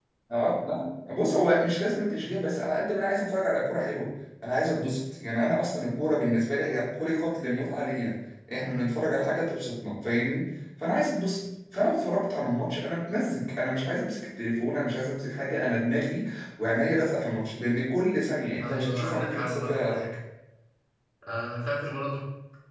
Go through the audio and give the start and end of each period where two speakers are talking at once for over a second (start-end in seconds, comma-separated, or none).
18.6-20.1